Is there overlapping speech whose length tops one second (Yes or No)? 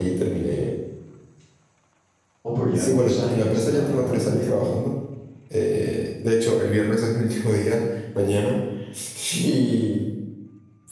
Yes